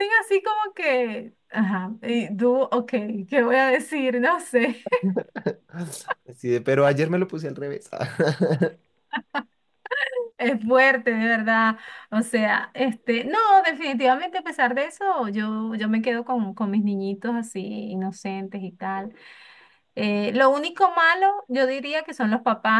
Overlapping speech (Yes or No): No